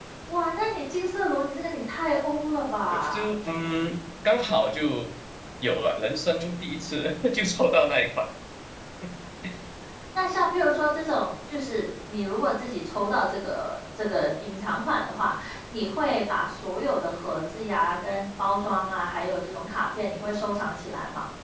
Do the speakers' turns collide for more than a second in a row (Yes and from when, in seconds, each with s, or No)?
No